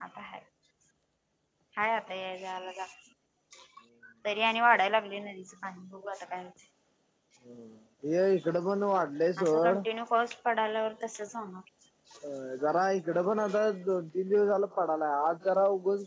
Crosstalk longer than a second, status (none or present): none